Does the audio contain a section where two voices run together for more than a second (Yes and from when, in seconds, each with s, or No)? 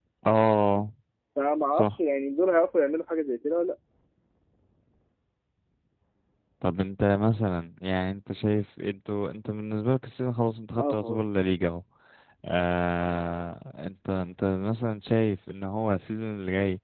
No